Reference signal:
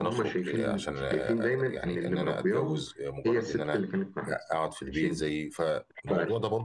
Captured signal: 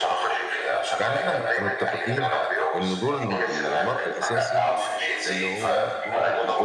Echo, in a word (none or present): present